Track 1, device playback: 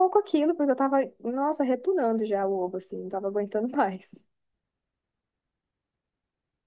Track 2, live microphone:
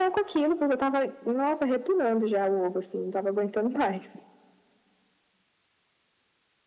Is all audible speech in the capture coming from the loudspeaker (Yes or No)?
Yes